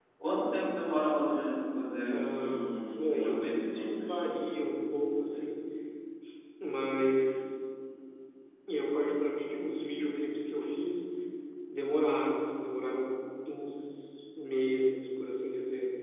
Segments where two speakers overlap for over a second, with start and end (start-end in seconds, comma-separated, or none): 2.1-4.2